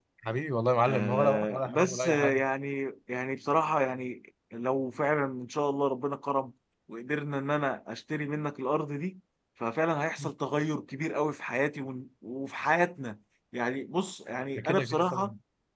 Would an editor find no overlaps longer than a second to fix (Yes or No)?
No